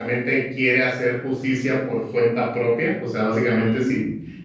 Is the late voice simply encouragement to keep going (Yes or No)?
Yes